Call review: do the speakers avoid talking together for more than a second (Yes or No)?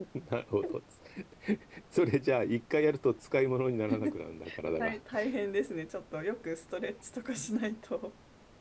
Yes